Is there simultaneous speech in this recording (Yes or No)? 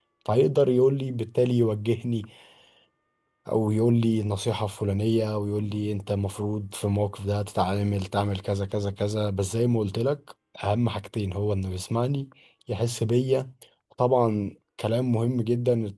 No